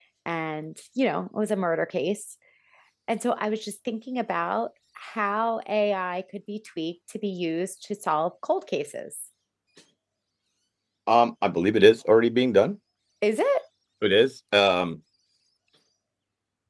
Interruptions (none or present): none